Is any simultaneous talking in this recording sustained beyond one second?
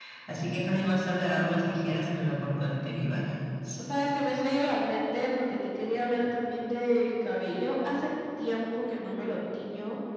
No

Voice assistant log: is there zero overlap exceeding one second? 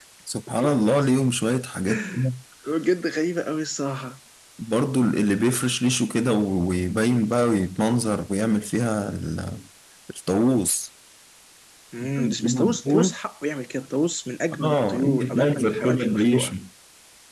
No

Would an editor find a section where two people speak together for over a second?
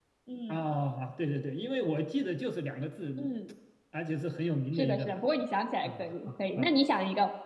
No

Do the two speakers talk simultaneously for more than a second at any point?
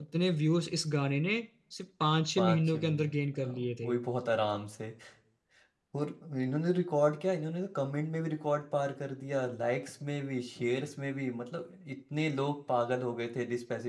Yes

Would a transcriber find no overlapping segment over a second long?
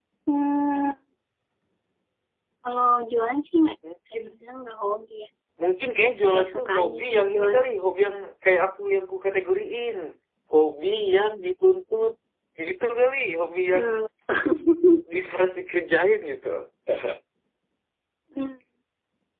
No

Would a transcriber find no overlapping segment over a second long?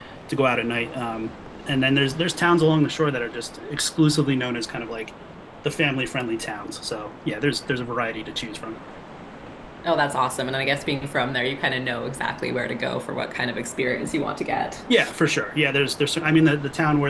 Yes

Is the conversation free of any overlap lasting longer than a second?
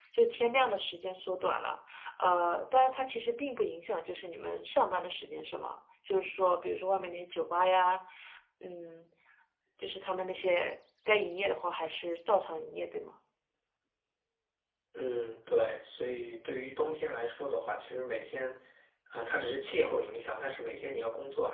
Yes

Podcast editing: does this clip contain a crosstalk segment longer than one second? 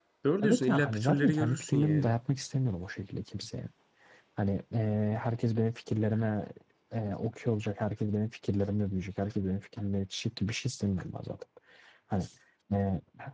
Yes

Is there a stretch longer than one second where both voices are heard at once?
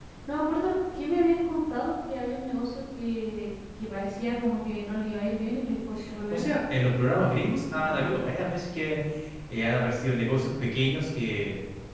No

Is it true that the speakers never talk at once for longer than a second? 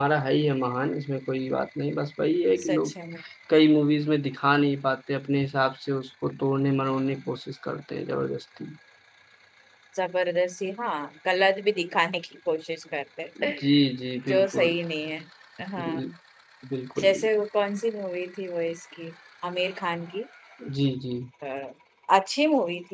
Yes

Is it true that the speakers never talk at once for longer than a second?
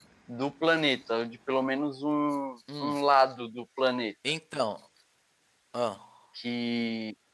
Yes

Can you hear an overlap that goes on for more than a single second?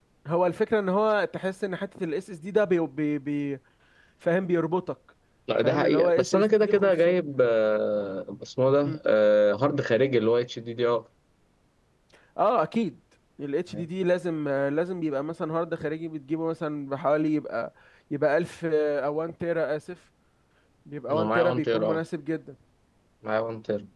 Yes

